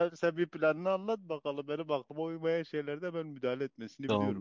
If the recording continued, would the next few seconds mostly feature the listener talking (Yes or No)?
Yes